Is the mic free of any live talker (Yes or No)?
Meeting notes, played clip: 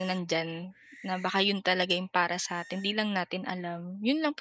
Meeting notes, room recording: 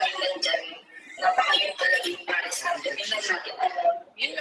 No